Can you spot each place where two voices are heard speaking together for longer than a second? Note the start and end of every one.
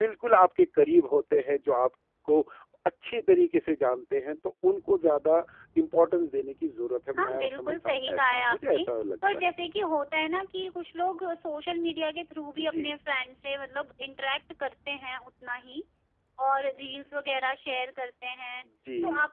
7.2-8.8

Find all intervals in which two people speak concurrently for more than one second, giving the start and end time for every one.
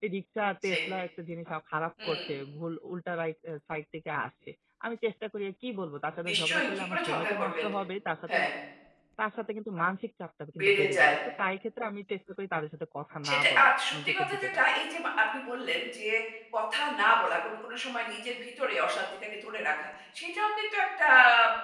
6.3-7.6, 13.3-14.6

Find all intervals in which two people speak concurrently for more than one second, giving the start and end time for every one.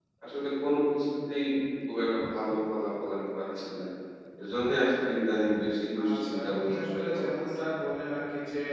6.1-7.5

